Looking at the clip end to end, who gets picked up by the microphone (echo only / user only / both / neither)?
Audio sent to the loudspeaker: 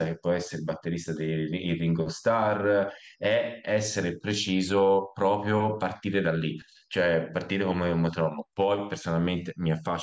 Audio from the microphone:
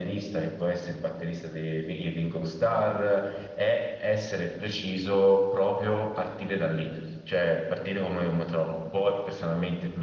echo only